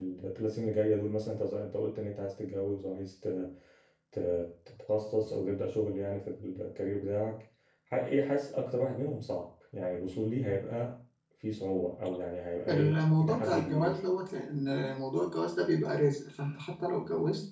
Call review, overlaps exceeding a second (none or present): present